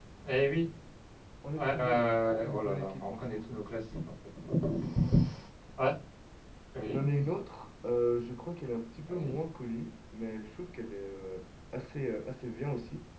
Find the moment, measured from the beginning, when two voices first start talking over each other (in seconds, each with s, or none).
1.6 s